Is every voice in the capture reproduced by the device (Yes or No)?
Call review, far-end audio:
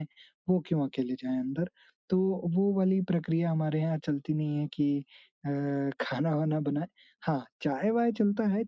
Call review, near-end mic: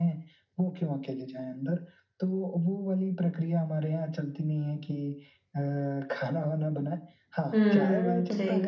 No